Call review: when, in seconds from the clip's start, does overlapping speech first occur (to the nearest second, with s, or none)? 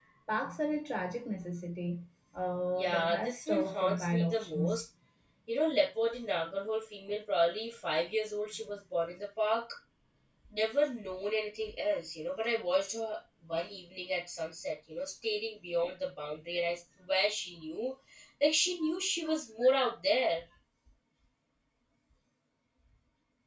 3 s